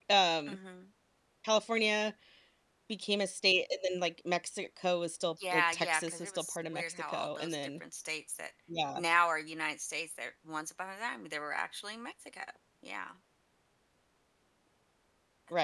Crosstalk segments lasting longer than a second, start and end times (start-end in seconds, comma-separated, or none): 5.5-7.5